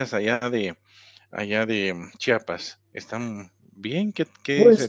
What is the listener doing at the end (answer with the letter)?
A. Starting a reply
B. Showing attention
A